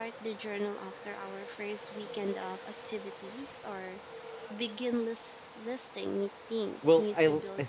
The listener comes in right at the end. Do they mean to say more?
Yes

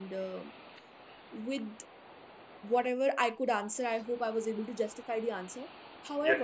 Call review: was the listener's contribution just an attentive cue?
No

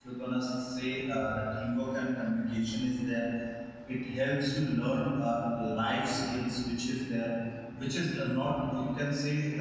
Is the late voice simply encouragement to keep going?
Yes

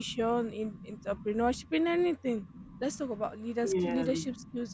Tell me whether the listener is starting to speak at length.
No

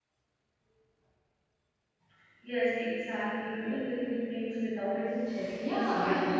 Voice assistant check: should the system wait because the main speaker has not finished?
No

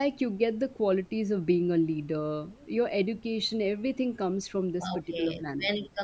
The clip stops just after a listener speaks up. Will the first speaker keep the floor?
No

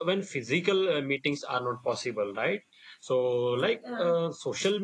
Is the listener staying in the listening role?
Yes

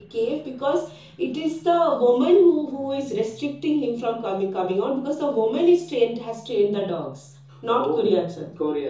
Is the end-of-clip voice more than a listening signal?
Yes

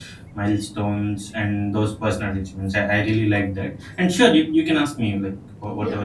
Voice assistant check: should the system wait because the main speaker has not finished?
No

